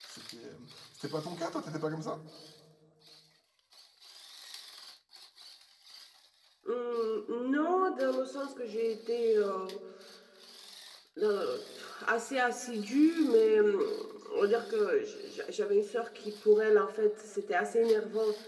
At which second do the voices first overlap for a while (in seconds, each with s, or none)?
none